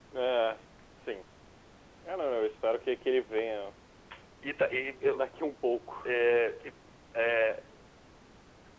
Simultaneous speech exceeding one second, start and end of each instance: none

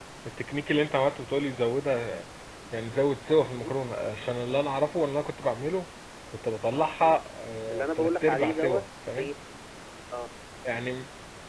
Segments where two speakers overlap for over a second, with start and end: 7.7-9.3

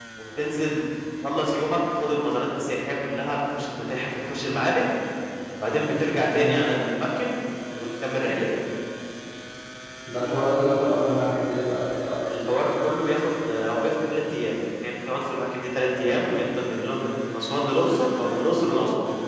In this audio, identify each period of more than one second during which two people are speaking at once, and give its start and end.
none

